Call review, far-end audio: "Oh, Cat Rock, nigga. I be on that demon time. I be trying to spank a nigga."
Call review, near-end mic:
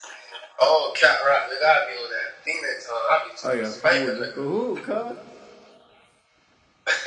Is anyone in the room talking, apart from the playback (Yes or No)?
Yes